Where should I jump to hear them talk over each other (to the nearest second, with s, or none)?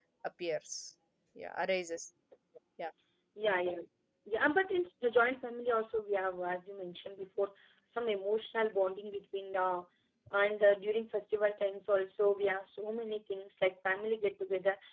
none